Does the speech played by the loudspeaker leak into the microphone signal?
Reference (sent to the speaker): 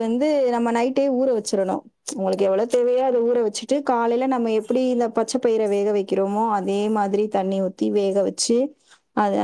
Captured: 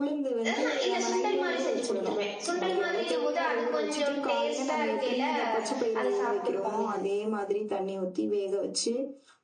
Yes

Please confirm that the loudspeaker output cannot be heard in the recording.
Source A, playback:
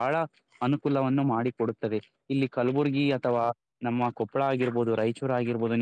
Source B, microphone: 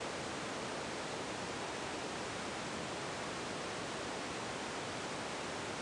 Yes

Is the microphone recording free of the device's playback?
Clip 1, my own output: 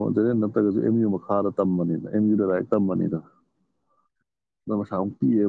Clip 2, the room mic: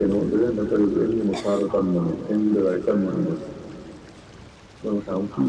No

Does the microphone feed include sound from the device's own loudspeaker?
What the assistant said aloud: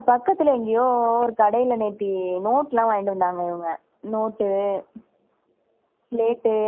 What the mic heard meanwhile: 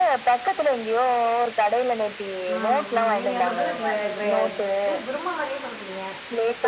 Yes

